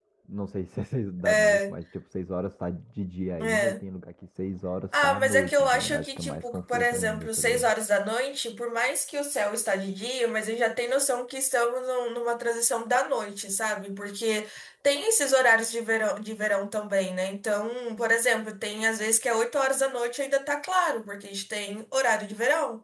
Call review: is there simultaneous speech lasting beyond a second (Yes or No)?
Yes